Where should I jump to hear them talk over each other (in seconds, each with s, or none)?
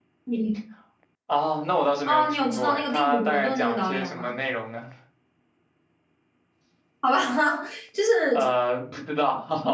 2.1 s